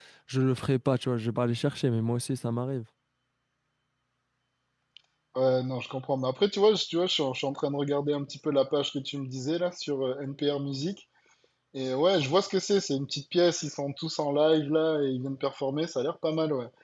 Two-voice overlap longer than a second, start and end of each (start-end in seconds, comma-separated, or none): none